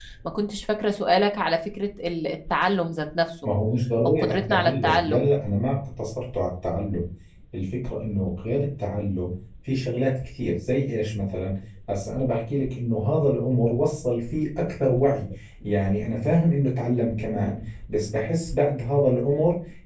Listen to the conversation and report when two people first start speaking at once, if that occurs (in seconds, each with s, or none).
4.0 s